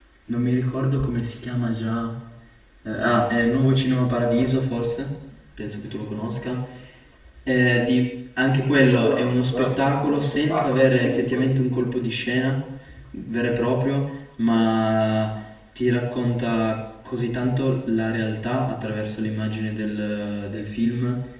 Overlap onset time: 8.7 s

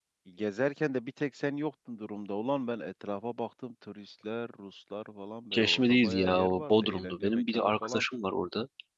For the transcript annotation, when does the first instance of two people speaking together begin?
5.5 s

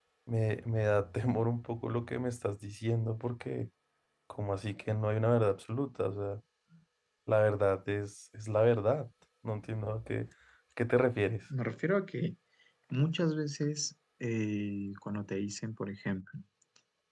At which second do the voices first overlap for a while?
none

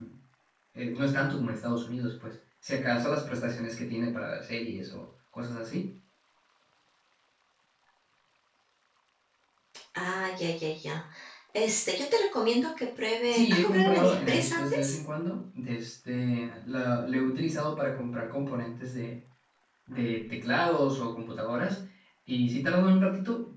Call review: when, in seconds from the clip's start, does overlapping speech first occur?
13.2 s

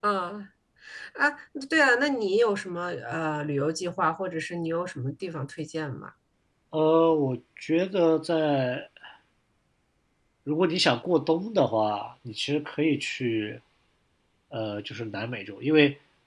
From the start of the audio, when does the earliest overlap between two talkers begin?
none

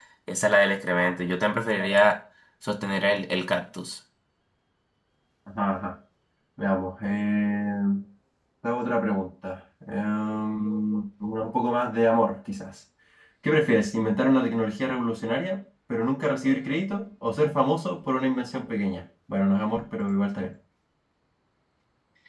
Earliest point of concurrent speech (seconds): none

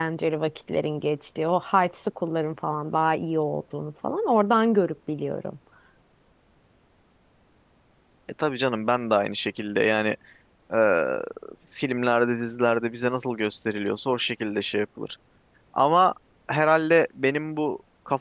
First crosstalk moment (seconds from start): none

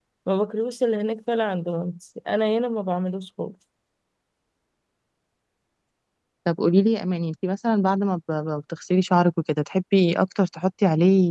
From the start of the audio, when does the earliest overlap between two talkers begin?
none

